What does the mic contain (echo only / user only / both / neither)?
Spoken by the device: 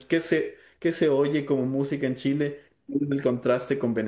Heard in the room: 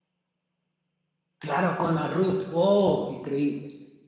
user only